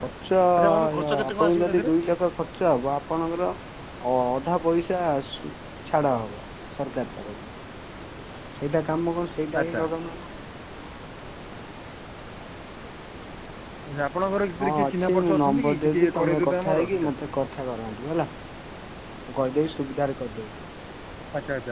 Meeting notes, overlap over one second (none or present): present